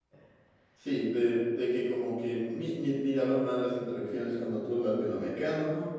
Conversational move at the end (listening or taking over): listening